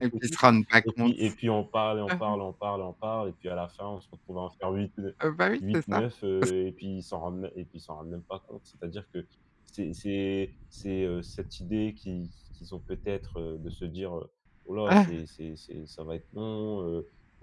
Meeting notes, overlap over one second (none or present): none